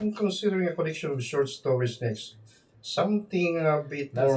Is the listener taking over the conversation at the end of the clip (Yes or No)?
Yes